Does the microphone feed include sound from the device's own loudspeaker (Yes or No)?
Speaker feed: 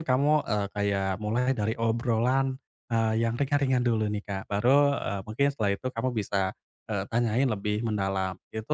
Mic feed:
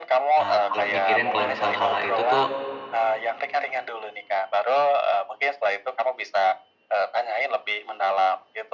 Yes